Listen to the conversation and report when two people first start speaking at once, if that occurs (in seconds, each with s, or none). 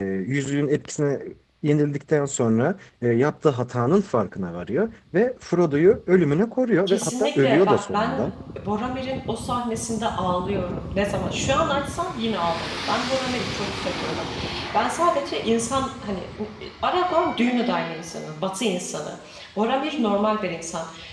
6.9 s